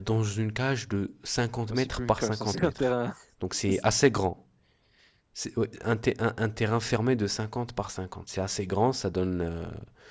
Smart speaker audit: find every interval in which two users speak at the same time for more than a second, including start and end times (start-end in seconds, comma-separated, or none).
1.6-2.9